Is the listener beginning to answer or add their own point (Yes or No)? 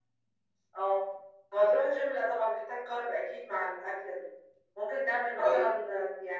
No